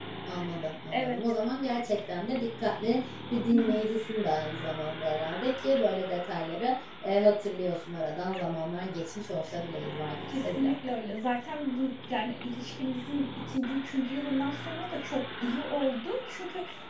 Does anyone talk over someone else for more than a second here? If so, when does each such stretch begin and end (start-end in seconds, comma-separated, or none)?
none